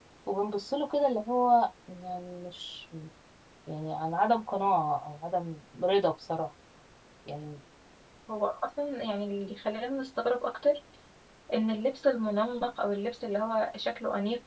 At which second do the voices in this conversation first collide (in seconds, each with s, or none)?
none